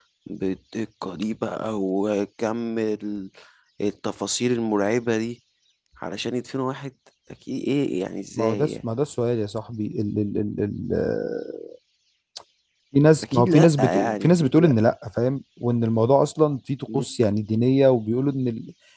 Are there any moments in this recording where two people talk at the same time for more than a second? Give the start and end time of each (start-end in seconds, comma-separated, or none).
13.2-14.7